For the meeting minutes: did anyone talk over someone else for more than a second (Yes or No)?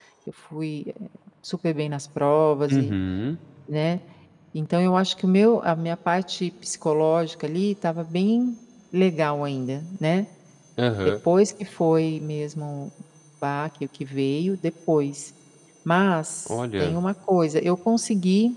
No